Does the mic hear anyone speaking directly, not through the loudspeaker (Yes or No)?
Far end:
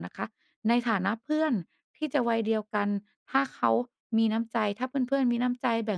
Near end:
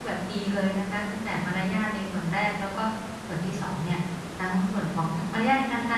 Yes